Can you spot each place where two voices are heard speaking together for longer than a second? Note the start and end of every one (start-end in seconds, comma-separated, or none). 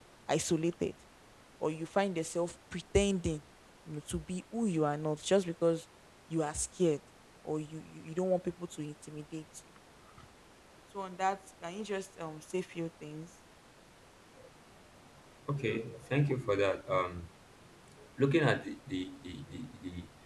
none